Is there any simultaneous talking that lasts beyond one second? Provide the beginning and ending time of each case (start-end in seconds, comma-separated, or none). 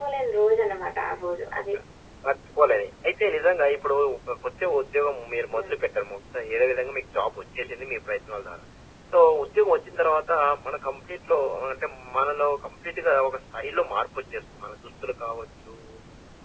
none